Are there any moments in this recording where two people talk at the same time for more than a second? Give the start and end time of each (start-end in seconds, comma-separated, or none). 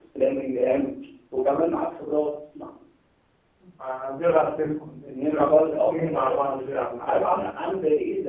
5.2-7.4